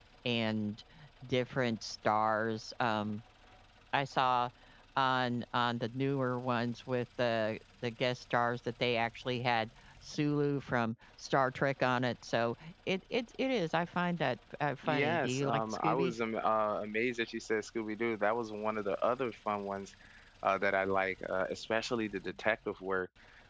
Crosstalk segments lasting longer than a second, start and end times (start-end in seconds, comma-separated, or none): 14.8-16.1